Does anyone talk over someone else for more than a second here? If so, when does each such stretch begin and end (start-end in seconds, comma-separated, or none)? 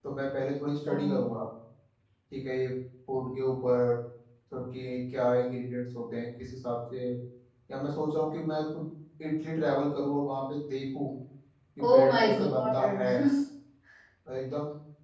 11.8-13.0